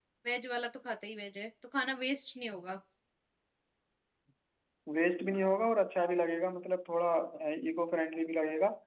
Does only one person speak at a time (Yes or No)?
Yes